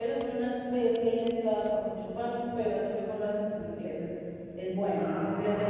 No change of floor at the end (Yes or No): Yes